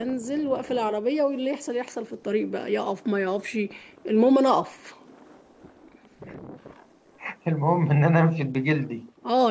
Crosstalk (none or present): none